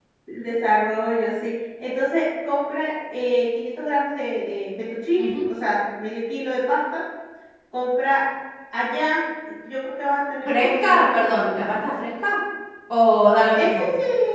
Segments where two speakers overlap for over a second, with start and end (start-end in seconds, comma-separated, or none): 10.4-11.7